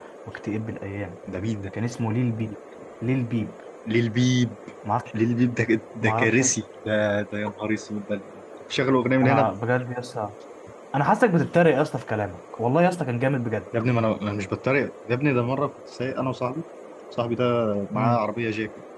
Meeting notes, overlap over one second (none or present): none